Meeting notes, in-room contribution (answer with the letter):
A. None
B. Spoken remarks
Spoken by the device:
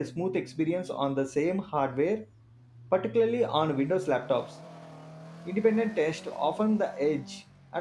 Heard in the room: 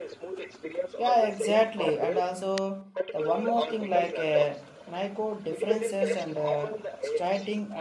B